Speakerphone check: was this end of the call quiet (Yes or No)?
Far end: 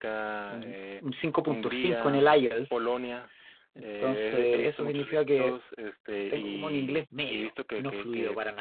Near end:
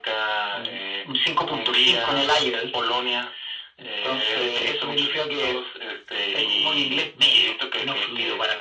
Yes